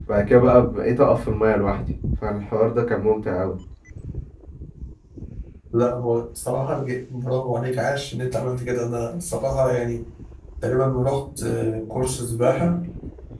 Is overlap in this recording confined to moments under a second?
Yes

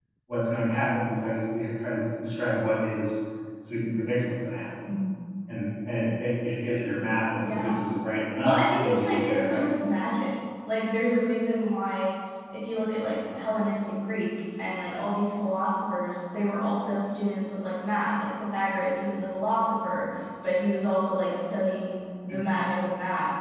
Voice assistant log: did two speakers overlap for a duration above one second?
Yes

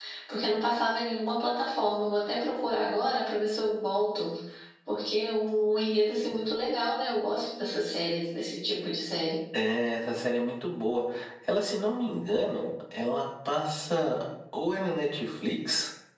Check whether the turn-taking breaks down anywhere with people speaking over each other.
No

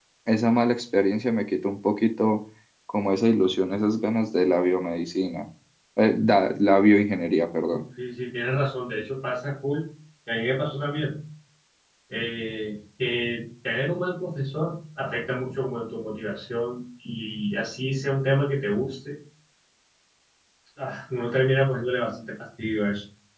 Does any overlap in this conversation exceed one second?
No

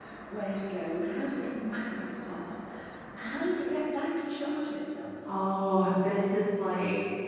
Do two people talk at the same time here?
No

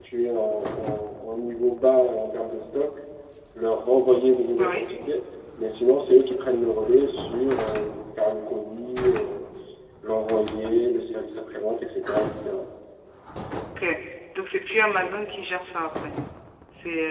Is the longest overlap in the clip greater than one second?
No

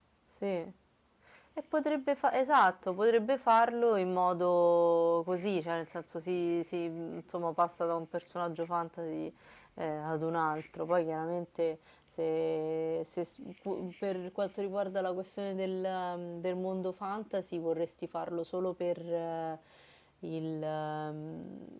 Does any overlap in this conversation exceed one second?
No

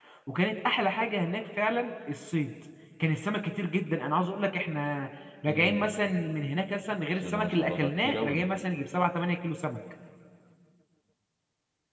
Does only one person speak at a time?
No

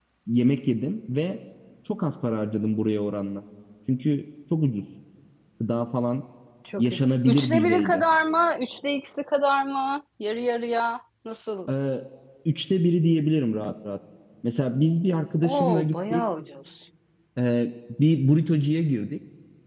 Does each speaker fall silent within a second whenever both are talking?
No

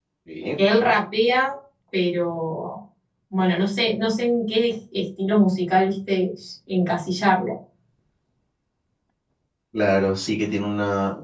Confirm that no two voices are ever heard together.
Yes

